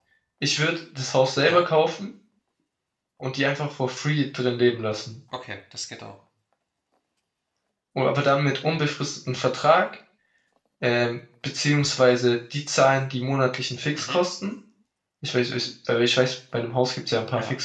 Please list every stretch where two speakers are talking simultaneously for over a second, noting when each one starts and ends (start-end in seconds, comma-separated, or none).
none